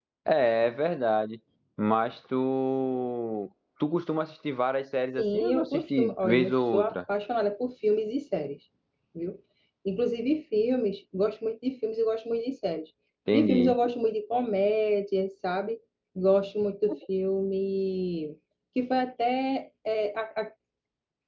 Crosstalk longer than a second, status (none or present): present